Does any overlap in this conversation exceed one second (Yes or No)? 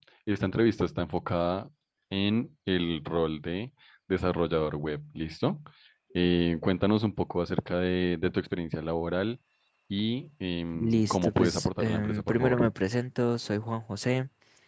Yes